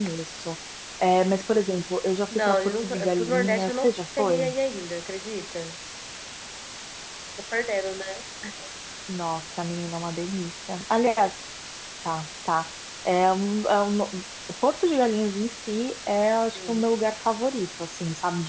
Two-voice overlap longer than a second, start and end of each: 2.3-4.5

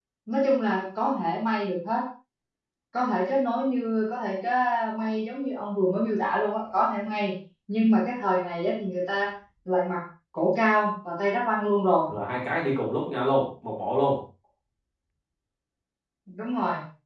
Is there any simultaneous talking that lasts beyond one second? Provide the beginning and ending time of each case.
none

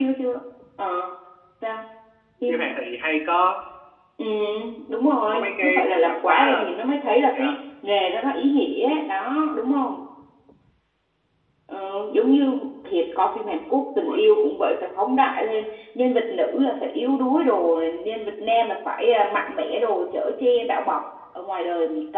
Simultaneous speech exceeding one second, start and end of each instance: 5.3-6.7

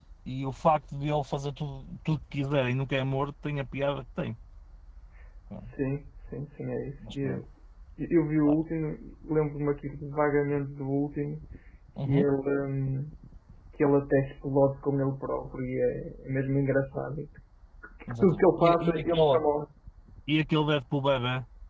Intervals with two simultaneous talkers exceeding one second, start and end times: 18.2-19.4

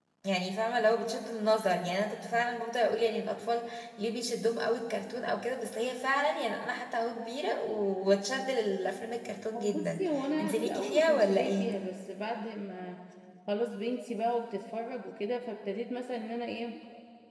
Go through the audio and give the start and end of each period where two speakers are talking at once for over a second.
10.4-11.7

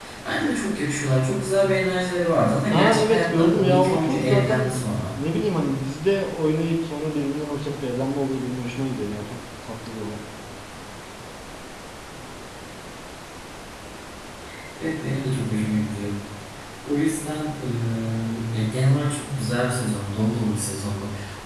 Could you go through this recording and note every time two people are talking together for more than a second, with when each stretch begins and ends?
2.7-4.8

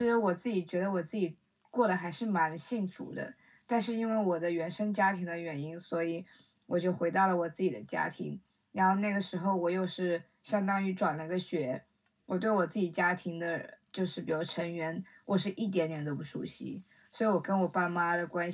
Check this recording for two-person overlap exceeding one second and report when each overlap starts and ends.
none

